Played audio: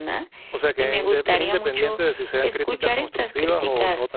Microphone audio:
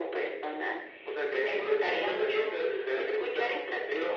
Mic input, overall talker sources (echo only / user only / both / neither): echo only